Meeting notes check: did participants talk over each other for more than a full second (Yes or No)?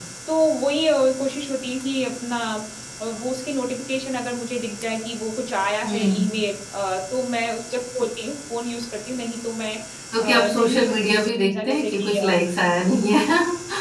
Yes